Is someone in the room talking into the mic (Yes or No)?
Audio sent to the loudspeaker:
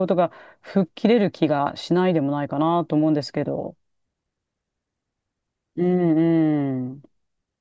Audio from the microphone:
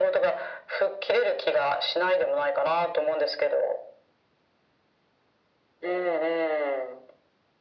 No